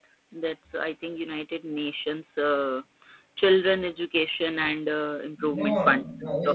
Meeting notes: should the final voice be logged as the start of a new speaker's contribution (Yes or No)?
Yes